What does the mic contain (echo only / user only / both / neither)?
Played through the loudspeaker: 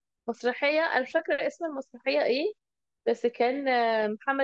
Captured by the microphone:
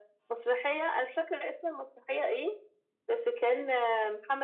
echo only